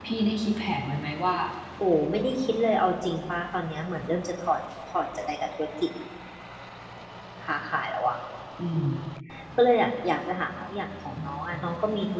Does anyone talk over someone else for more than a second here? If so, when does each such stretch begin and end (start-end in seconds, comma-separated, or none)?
none